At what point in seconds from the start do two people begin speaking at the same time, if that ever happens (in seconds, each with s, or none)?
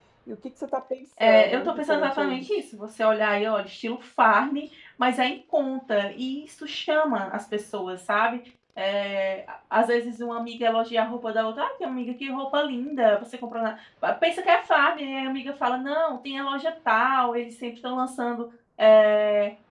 1.2 s